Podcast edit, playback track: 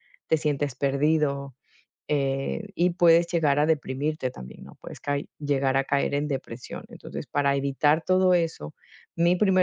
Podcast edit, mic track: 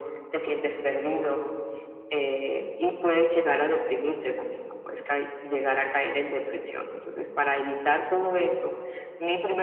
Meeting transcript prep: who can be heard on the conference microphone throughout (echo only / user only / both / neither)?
echo only